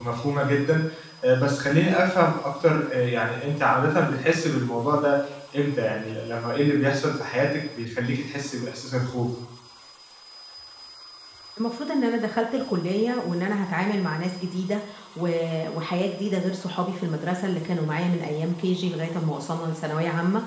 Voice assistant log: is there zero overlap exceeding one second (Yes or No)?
Yes